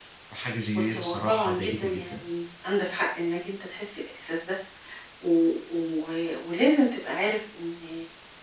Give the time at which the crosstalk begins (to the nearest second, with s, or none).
1 s